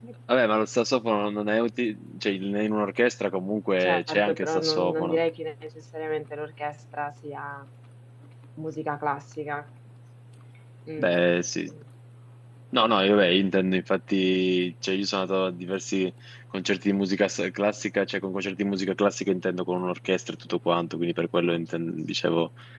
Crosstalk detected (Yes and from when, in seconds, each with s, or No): Yes, from 3.8 s